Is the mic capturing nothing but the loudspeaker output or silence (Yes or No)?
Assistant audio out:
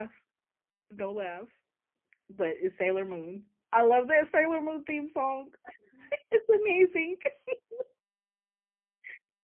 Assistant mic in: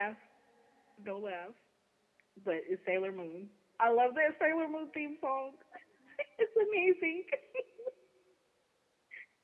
Yes